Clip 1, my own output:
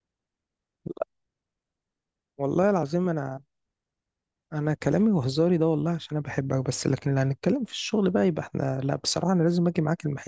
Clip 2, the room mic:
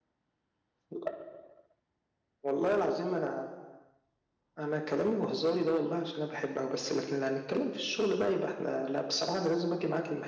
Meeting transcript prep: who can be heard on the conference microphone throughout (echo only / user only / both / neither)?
echo only